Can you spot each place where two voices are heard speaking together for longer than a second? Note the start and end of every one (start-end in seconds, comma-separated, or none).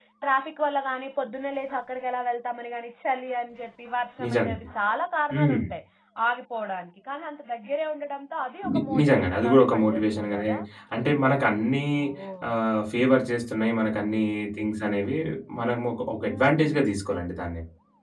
8.7-10.5